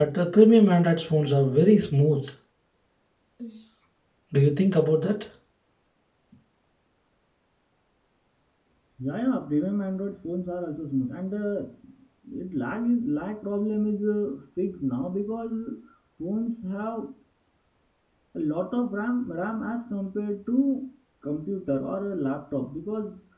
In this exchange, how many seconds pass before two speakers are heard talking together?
none

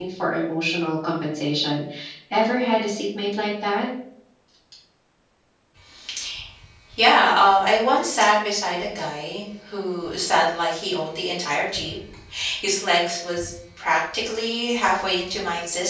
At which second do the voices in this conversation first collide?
none

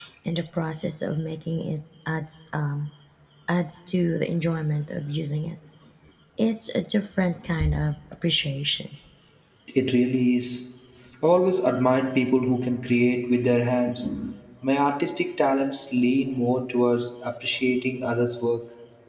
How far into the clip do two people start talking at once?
none

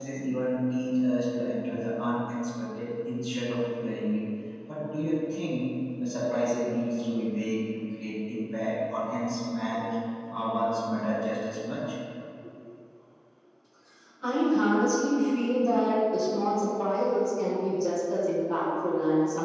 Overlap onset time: none

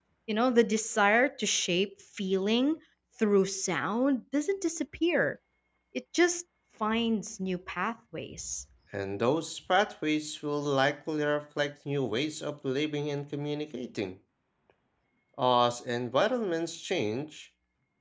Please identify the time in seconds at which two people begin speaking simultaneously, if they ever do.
none

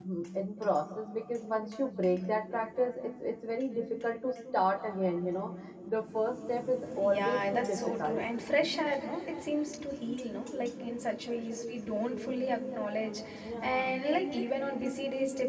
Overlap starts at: 7 s

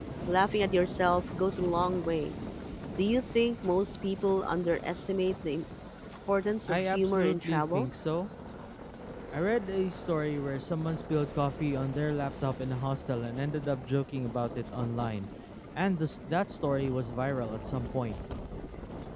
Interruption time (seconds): 7 s

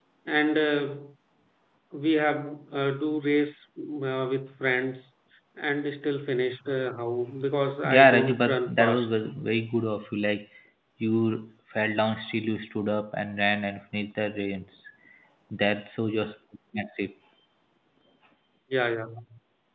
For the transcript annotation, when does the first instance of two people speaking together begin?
8 s

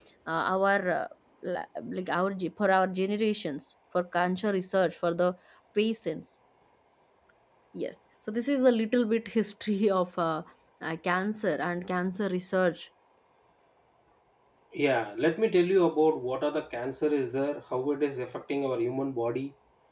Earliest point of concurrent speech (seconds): none

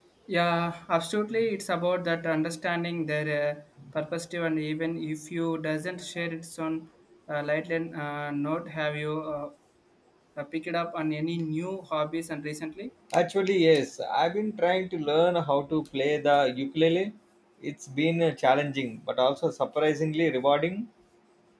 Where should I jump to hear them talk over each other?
none

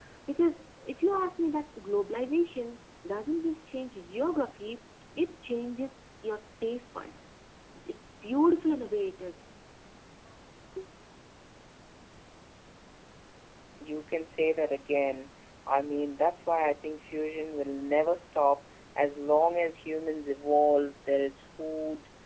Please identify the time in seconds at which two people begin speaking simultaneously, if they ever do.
none

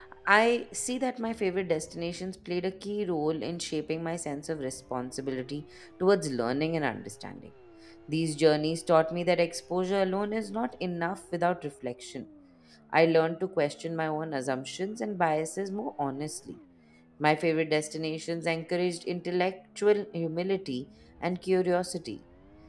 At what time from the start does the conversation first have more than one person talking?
none

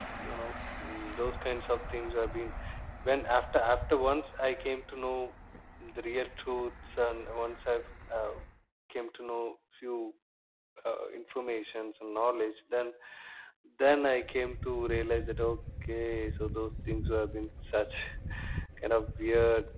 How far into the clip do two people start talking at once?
none

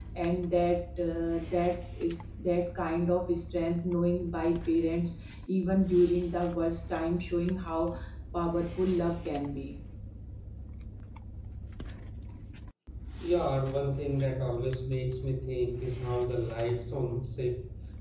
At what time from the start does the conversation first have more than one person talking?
none

